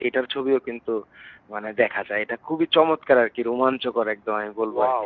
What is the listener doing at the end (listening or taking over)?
taking over